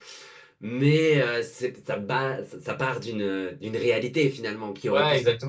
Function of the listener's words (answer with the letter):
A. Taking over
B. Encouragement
A